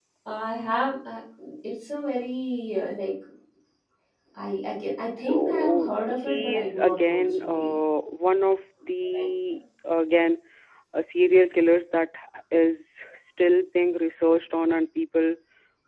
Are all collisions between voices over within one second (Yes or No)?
No